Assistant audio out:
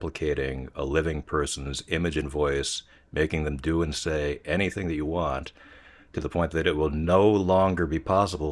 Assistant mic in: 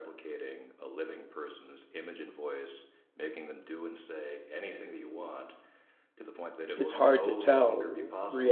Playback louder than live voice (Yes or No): No